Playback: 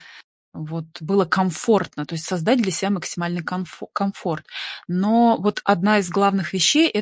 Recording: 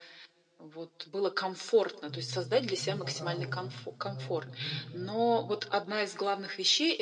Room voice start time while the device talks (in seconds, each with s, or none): 2.0 s